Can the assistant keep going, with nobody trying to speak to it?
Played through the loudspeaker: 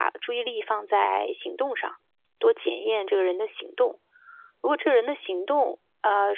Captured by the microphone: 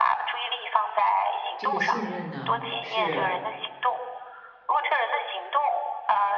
No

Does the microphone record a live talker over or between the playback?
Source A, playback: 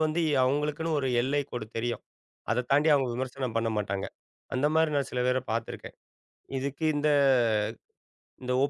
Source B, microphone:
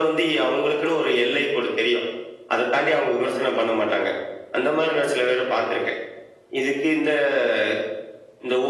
No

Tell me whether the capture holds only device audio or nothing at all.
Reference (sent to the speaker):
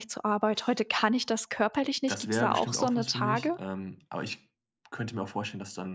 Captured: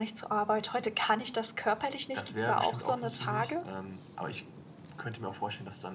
Yes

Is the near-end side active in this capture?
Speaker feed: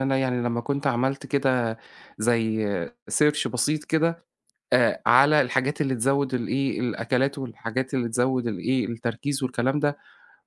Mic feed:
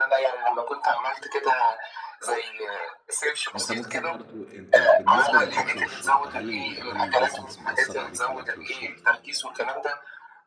Yes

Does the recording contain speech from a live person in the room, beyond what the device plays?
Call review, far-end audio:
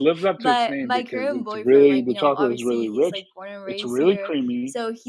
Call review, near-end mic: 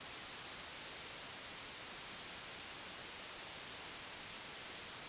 No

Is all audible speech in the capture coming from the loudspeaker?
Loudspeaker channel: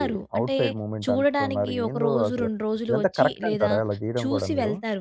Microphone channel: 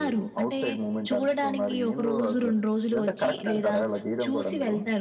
Yes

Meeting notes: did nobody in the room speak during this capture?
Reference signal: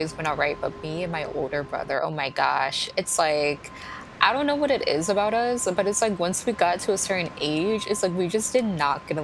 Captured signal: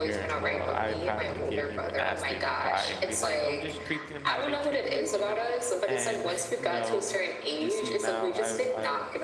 No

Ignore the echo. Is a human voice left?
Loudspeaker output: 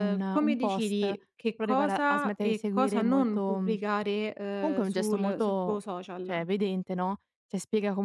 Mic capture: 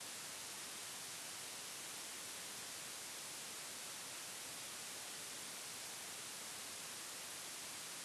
No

